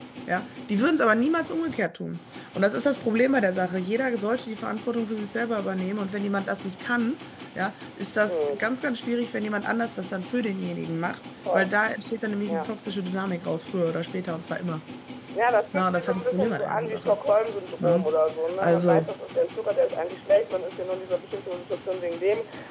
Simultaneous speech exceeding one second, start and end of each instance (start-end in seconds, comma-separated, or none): 15.7-17.2